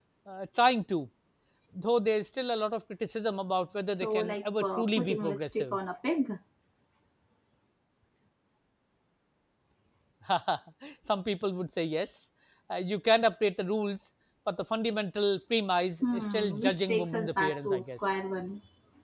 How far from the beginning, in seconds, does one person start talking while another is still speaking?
4.0 s

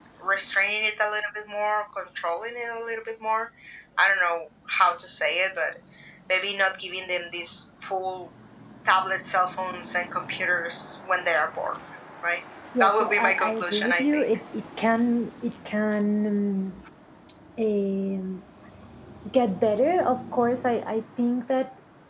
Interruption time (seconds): 12.8 s

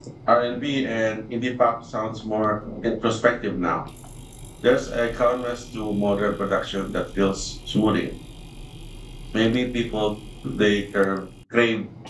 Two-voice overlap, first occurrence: none

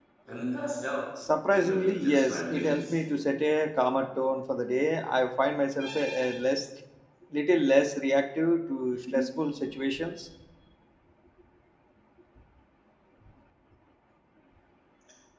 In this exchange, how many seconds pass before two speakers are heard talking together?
1.5 s

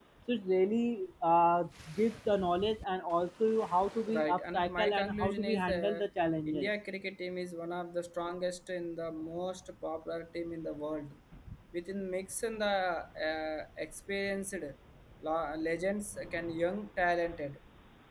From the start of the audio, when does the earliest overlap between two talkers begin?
4.1 s

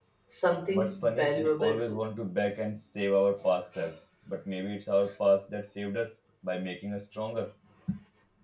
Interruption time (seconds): 0.7 s

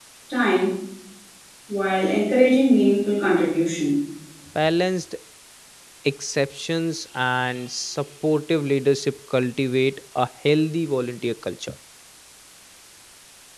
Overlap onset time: none

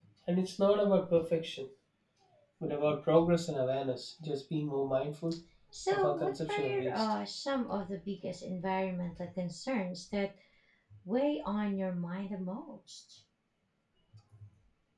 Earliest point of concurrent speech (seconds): 5.9 s

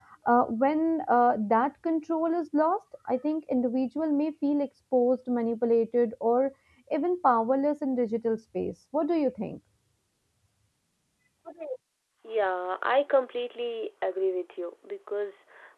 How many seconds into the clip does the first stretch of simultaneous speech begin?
none

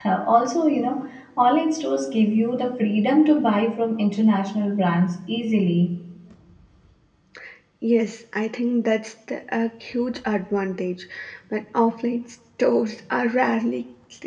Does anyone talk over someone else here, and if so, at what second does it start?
none

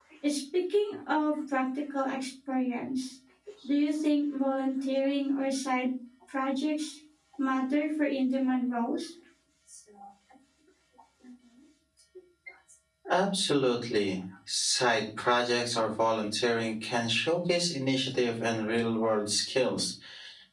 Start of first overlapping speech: none

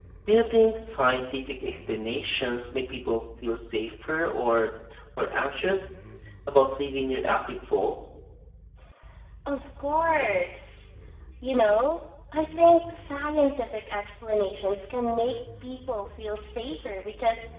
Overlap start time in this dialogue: none

